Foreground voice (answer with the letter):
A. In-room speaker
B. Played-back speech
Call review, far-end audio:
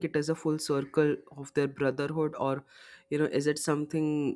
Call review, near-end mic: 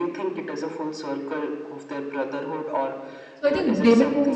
A